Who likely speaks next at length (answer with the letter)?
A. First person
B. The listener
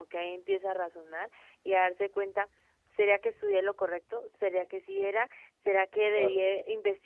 A